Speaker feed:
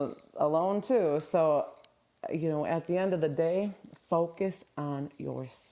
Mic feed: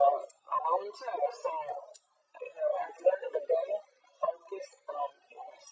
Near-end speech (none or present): none